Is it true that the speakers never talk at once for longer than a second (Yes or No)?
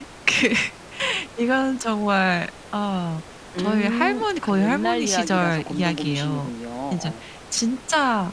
No